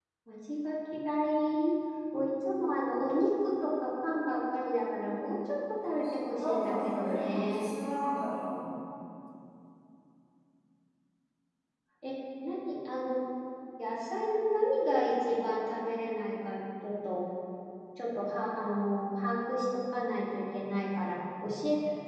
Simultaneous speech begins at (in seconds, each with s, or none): 5.8 s